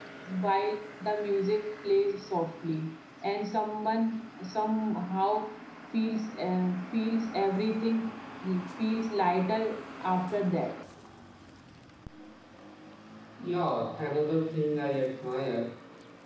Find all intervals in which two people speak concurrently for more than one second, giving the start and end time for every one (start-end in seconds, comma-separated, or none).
none